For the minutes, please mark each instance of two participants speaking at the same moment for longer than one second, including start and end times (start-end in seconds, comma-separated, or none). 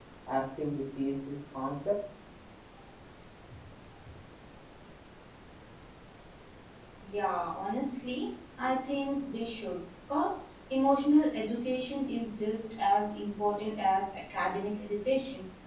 none